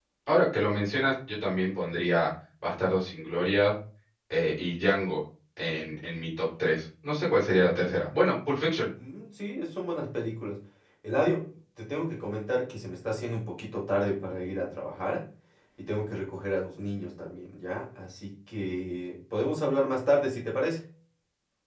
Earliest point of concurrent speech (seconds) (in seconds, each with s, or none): none